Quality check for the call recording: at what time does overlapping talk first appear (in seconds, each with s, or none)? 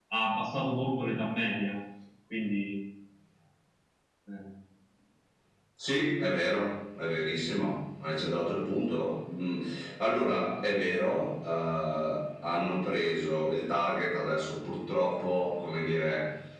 none